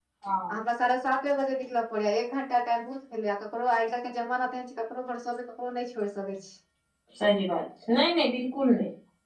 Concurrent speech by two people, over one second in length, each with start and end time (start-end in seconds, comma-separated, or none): none